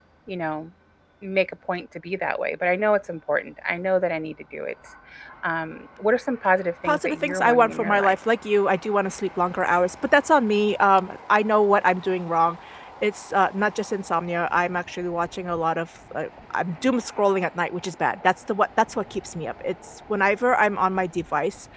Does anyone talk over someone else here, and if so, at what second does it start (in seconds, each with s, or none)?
6.8 s